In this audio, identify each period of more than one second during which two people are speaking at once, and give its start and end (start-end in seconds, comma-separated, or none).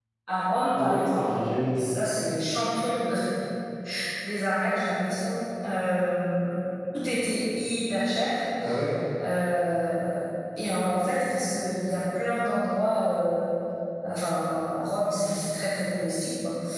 none